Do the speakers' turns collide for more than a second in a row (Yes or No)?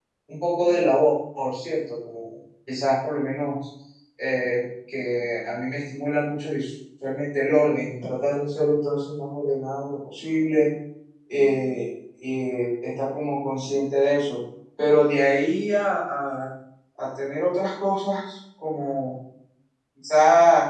No